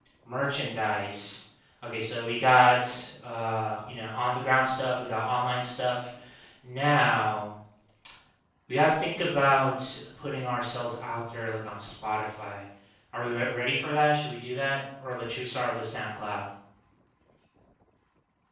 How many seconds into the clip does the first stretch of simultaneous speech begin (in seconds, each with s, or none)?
none